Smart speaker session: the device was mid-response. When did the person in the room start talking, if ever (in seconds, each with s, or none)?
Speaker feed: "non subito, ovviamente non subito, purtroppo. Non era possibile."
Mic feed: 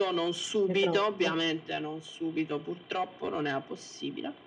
0.7 s